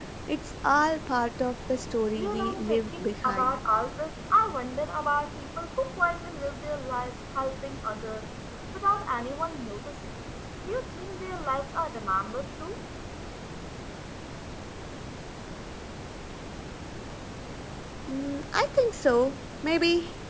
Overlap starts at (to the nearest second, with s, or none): 2 s